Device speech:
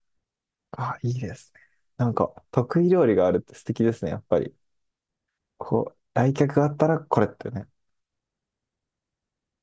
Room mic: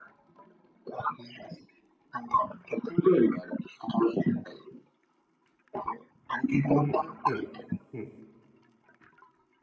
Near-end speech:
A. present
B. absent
A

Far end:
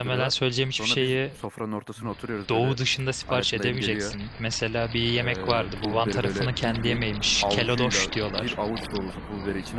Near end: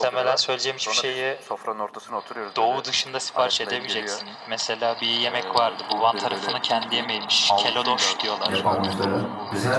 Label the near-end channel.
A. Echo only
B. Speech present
B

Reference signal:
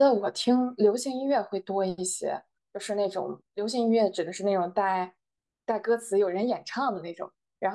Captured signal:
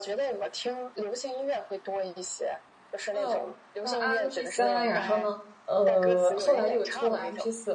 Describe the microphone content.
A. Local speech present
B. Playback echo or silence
A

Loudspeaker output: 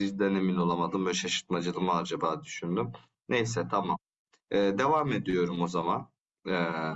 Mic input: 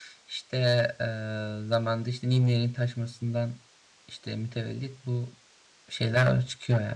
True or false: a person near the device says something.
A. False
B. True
B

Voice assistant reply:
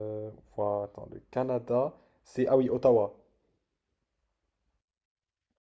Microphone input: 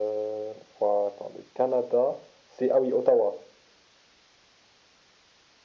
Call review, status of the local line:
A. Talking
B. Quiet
B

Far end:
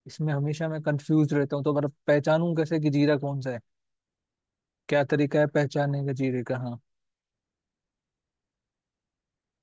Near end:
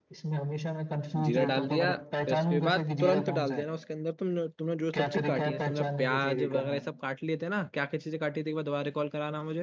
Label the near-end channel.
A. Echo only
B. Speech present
B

